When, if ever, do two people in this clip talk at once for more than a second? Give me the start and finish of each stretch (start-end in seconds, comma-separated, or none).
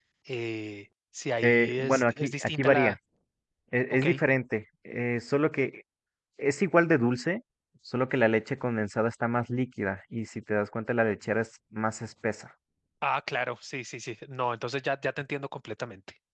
1.4-3.0